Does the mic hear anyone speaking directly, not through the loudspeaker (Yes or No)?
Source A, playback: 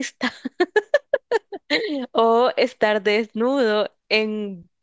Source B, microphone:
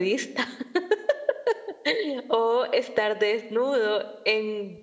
No